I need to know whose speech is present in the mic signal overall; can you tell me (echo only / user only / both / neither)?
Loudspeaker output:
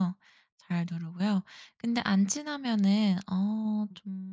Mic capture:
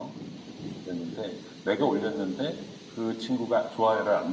user only